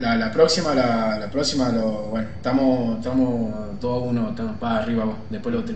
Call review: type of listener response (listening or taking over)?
taking over